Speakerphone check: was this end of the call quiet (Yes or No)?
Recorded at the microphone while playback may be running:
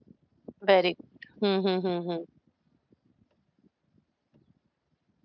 No